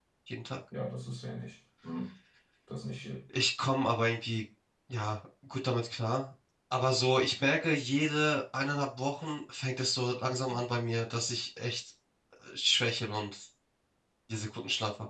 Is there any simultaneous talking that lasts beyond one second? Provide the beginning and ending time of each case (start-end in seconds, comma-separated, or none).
none